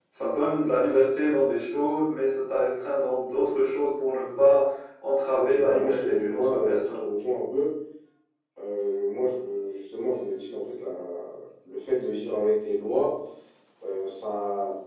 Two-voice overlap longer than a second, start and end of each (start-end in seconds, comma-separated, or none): 5.3-7.0